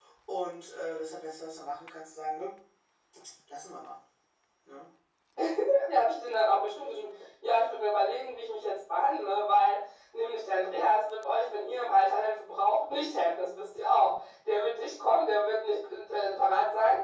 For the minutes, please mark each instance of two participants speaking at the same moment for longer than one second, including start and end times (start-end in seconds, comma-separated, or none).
none